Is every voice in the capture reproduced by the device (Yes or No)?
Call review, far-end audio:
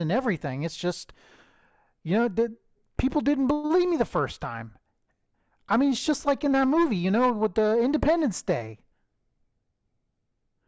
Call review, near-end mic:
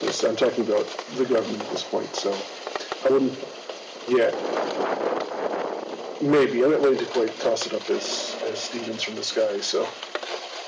No